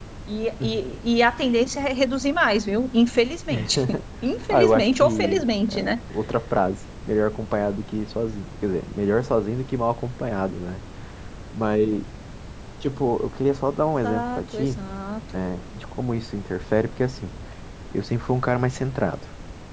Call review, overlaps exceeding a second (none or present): present